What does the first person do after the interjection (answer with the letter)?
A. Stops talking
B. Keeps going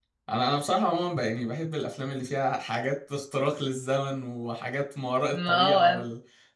B